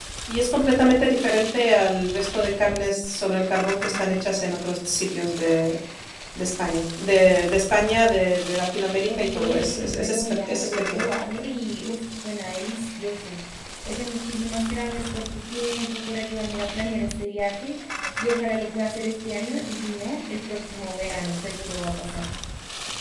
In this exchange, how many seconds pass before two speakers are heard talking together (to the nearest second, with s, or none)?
9 s